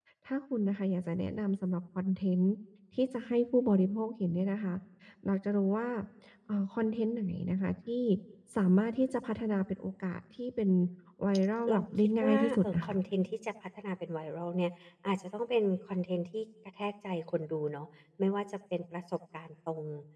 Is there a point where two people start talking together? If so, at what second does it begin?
12 s

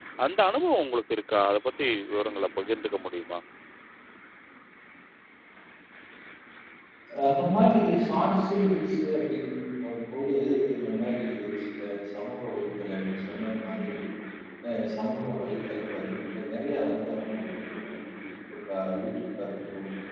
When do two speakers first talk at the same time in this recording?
none

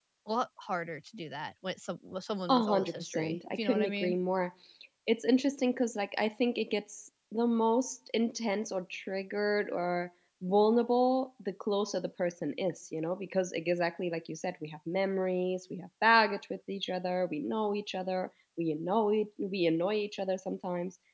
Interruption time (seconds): 2 s

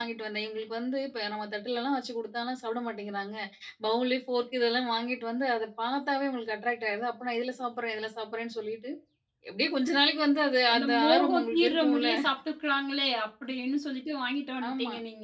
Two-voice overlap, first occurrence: 11 s

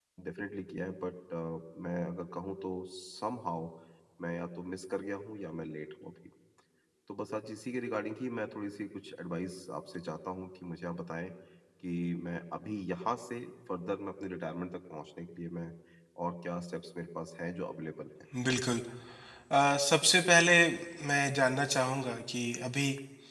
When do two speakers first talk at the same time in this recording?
none

